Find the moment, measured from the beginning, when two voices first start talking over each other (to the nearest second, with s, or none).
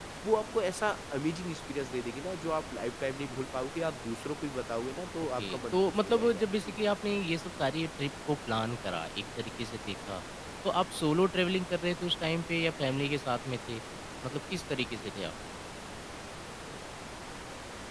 5 s